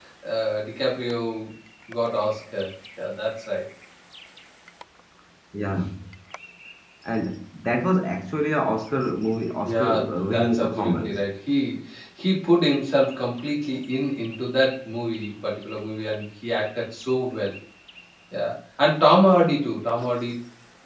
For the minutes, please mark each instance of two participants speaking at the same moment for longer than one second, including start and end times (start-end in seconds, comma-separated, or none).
9.7-11.3